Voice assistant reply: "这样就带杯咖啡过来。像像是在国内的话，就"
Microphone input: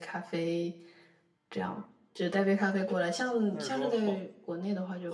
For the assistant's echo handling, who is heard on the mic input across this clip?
both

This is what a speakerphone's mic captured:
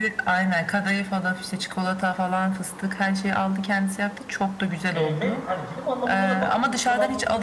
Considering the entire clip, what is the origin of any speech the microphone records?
both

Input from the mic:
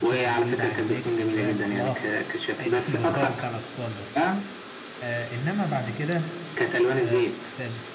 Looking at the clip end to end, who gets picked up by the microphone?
both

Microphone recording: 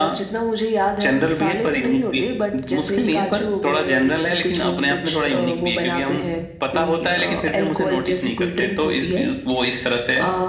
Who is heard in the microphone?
echo only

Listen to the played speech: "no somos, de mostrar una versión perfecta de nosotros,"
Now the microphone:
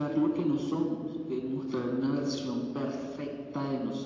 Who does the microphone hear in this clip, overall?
echo only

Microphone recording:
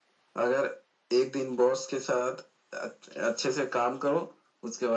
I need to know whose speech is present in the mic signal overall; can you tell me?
echo only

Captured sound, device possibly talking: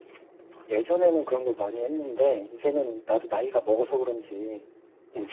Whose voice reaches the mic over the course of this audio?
echo only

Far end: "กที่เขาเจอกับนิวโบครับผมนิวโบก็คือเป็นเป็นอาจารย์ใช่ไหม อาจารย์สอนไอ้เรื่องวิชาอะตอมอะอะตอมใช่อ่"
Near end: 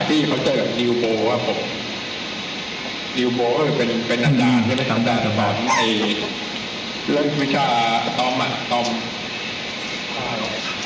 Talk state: both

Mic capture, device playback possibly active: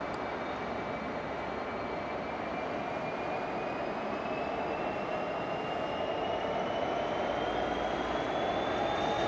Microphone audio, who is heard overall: neither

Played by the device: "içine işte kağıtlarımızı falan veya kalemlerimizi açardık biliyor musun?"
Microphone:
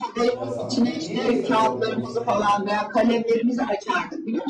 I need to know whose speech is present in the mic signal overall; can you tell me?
both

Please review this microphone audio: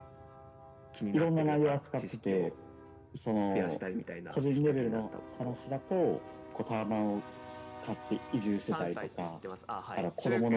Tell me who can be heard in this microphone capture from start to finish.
both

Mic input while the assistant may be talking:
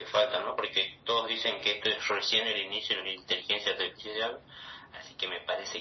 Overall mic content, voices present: echo only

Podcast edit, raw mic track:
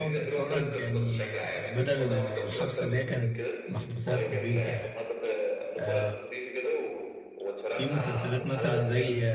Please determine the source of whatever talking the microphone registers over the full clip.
both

